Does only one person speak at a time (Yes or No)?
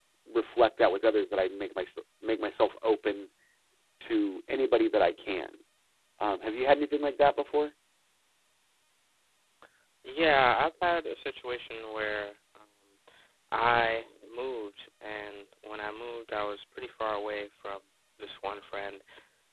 Yes